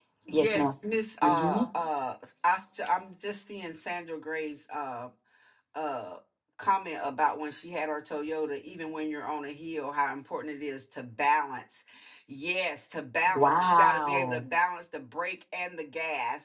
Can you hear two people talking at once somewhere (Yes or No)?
Yes